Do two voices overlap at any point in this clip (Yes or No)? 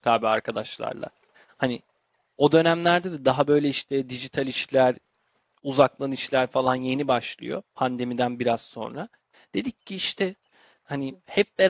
No